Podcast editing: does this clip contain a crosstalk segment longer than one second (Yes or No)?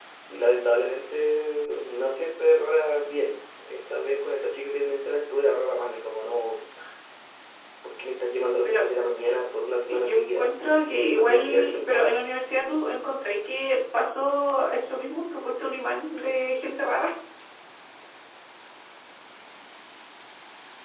Yes